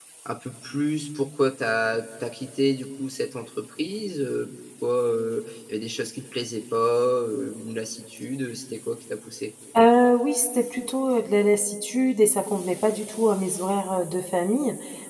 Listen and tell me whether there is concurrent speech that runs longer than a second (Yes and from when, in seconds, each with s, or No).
No